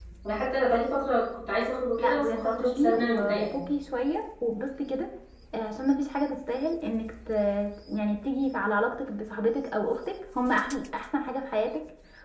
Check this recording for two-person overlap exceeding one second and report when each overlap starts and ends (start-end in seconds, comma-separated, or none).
2.0-3.6